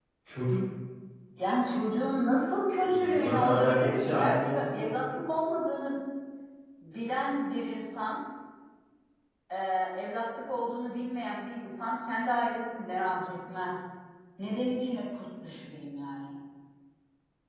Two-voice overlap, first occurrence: 3.0 s

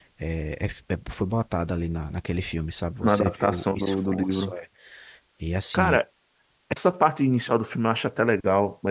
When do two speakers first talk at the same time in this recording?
3.0 s

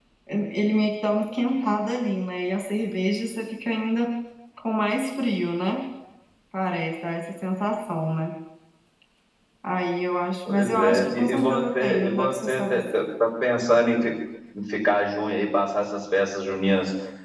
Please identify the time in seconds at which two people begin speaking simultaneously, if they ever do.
10.4 s

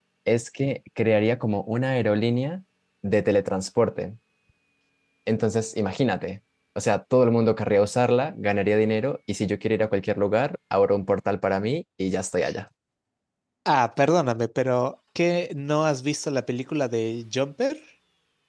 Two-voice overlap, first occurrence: none

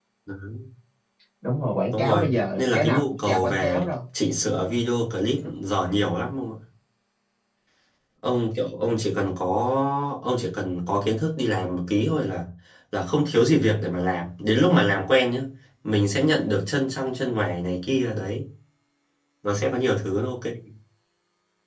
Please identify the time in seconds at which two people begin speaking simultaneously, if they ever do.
1.9 s

